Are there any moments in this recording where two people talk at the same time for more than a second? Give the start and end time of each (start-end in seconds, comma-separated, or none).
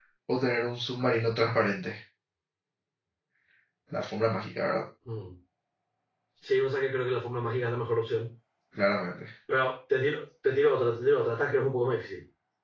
none